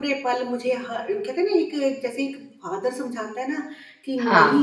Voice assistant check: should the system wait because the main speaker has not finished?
Yes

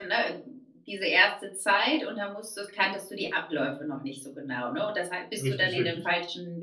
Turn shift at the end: No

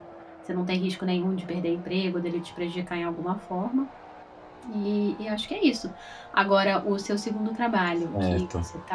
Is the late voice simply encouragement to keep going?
Yes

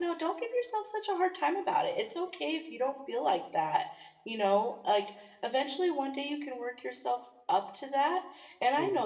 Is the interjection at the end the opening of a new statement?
No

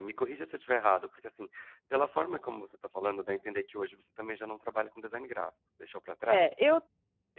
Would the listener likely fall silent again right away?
No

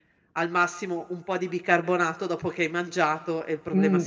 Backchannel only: No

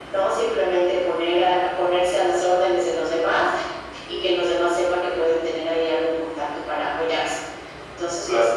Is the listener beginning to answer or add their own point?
No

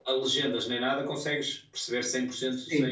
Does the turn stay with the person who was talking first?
No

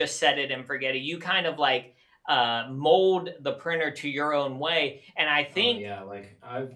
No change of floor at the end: No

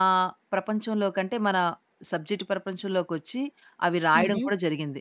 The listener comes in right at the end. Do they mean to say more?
No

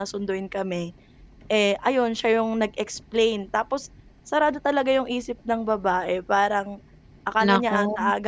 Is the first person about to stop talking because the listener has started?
No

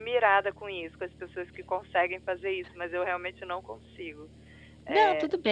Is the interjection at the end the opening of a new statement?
Yes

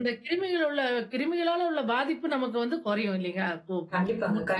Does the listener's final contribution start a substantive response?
Yes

